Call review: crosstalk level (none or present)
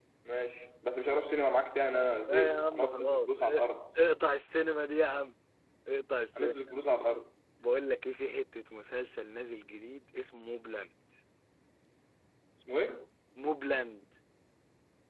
present